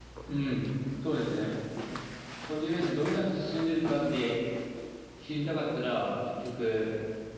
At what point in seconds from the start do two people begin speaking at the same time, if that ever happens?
none

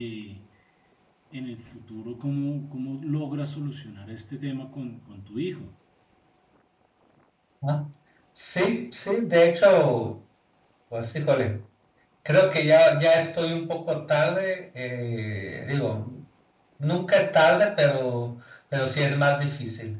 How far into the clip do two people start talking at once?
none

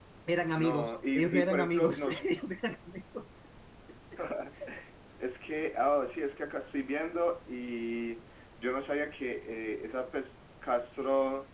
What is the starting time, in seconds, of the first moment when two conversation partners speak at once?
0.5 s

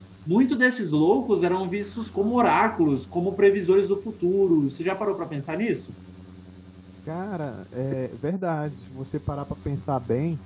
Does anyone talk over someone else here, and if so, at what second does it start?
none

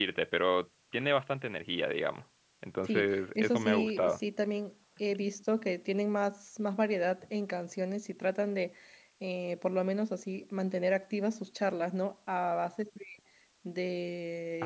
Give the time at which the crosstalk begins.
2.9 s

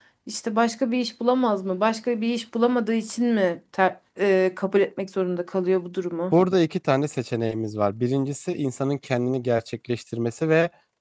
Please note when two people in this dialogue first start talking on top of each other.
none

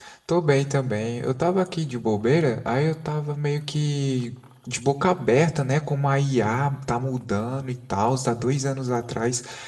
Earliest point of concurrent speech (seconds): none

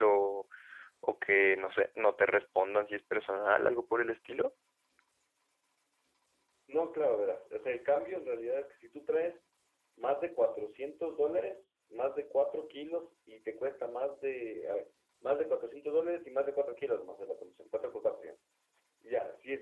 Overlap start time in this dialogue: none

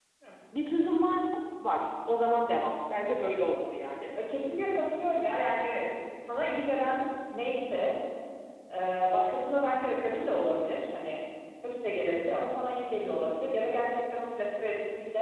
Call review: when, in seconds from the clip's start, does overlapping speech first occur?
none

